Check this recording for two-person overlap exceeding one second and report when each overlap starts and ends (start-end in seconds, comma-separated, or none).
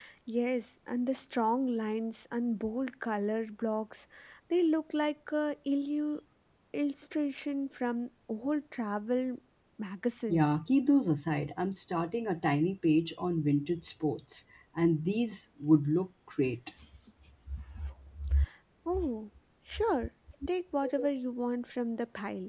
none